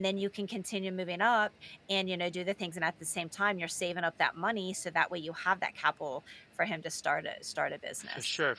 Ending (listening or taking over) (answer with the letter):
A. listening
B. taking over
B